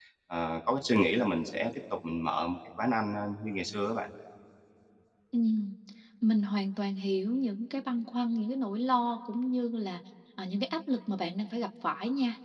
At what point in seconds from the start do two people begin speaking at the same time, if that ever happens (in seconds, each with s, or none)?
none